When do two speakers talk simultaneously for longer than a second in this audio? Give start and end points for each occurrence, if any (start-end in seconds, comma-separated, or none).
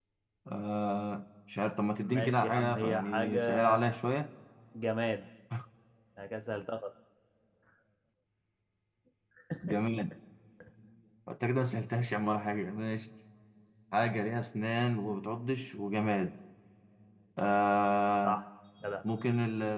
2.0-3.7